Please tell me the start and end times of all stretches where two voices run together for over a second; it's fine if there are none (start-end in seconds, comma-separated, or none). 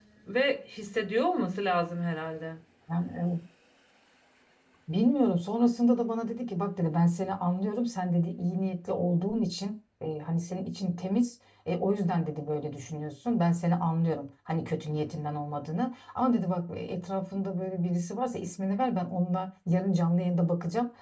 none